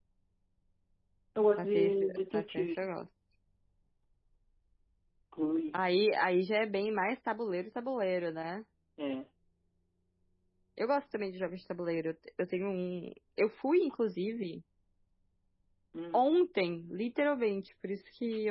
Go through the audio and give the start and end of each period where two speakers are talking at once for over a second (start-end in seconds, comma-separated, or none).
1.6-2.8